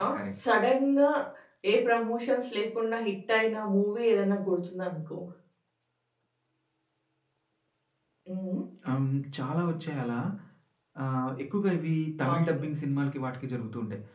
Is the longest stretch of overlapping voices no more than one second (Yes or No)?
Yes